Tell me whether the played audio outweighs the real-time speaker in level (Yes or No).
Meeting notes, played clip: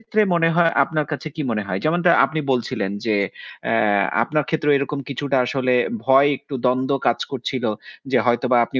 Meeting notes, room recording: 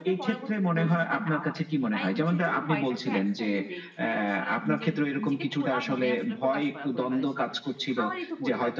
Yes